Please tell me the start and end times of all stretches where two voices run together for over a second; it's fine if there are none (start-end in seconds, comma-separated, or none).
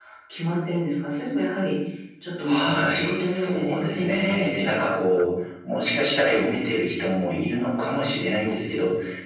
2.4-4.7